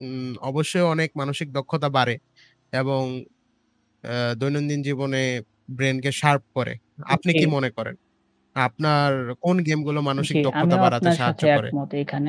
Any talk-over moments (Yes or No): Yes